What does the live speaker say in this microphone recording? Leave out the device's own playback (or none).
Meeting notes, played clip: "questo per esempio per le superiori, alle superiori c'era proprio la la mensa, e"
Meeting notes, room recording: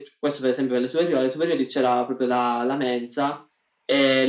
none